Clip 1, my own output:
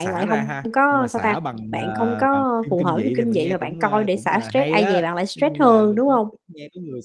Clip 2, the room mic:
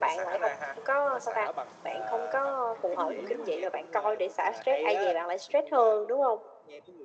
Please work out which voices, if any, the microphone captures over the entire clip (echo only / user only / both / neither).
both